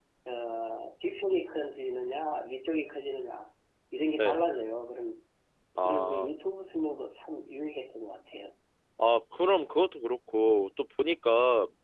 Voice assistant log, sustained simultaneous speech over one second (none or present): none